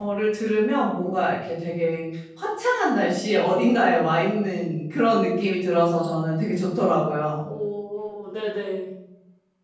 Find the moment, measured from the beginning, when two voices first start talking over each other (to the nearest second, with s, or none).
none